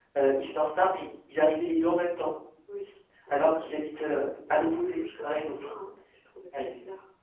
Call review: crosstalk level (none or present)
present